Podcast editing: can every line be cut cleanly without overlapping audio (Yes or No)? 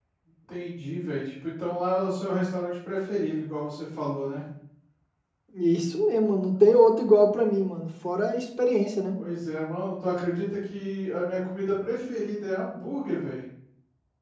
Yes